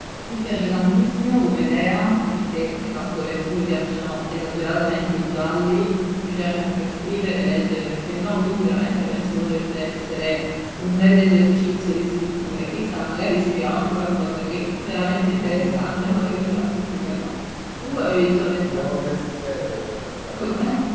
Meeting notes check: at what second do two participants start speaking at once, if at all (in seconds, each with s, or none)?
15.3 s